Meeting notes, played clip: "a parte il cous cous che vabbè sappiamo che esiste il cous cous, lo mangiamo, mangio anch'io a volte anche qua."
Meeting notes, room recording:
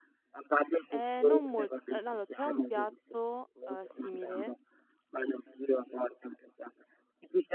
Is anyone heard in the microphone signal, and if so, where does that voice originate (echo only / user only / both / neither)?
both